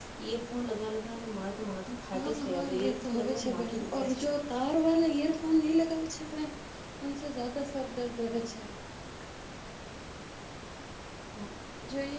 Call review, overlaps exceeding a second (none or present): present